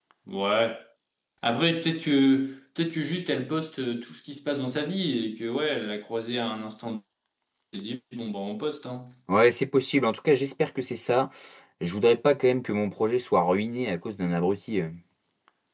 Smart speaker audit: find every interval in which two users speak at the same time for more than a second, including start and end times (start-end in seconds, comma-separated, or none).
none